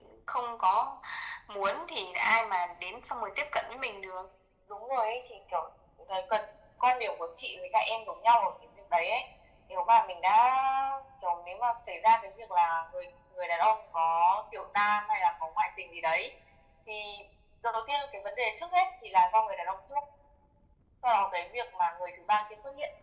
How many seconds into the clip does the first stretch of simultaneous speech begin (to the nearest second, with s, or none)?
none